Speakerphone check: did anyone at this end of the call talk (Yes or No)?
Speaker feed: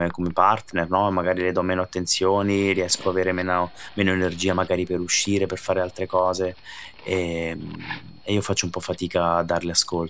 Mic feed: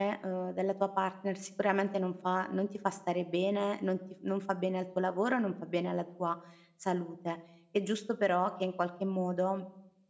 Yes